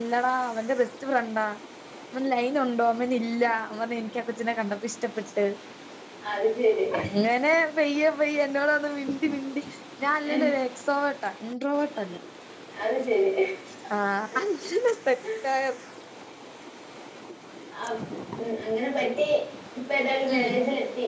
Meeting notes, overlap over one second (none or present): none